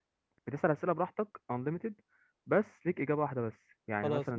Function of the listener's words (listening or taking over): listening